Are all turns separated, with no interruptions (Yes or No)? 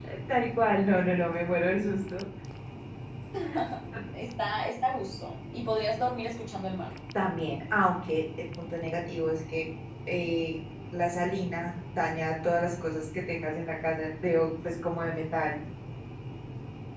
Yes